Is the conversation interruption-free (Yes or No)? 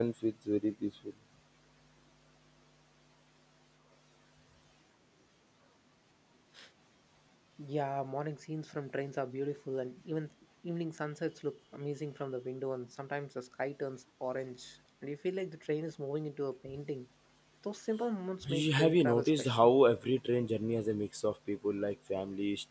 No